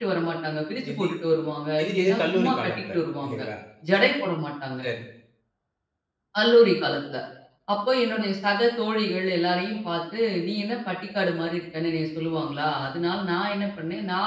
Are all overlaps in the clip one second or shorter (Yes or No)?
No